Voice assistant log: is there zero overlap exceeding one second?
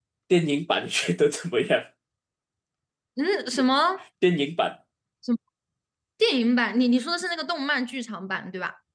Yes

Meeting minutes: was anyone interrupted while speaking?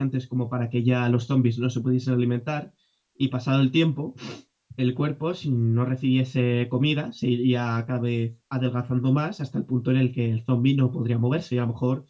No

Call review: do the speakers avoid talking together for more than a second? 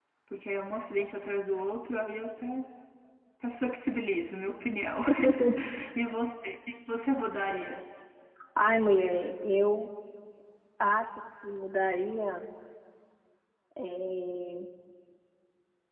Yes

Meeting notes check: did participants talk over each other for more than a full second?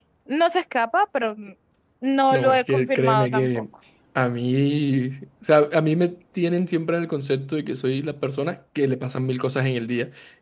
Yes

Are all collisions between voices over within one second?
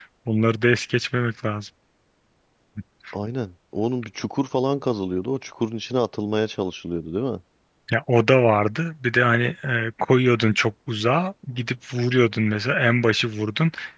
Yes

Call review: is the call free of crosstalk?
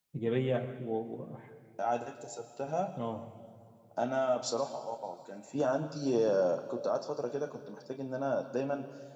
Yes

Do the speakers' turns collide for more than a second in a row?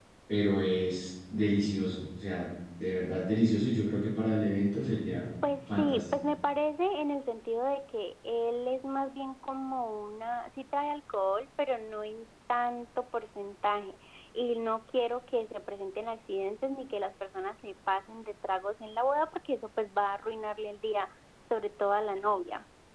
No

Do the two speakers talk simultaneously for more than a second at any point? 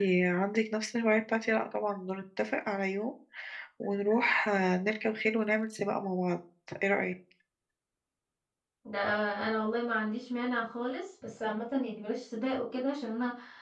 No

